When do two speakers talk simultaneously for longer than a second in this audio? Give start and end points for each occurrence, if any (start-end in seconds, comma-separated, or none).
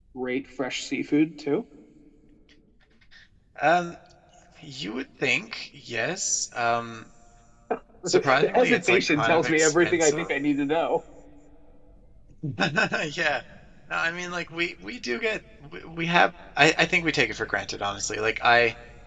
8.1-10.3